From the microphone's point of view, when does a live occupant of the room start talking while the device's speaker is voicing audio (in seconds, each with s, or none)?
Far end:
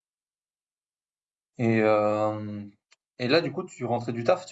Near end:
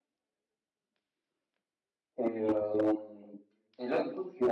none